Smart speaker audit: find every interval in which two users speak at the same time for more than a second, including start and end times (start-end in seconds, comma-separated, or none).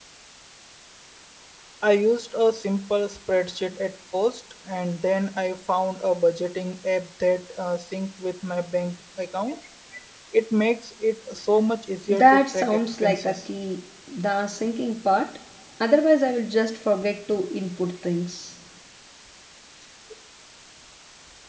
12.1-13.4